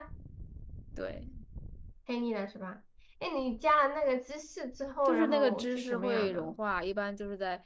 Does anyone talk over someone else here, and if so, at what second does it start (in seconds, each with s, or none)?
5.0 s